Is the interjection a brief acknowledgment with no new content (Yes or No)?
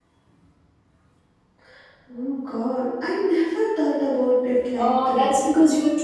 No